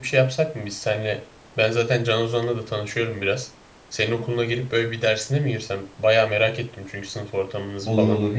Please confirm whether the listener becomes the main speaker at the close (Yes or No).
Yes